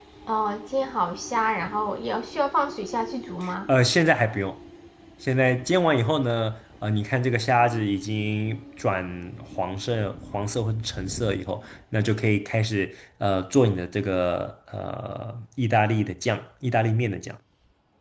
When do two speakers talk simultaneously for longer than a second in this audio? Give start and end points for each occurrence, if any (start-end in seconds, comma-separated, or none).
none